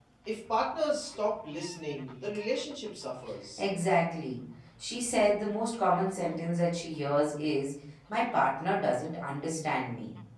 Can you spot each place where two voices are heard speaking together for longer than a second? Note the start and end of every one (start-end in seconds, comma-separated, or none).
none